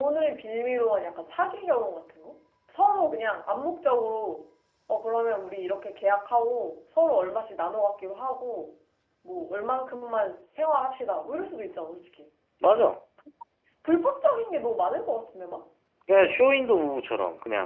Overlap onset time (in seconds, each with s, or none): none